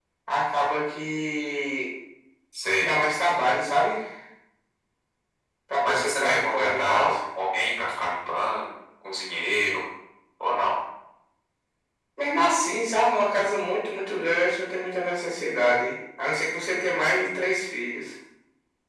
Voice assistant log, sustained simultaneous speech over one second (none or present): present